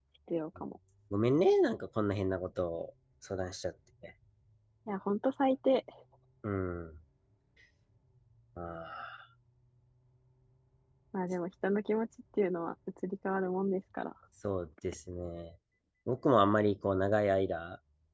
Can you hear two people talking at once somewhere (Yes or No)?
No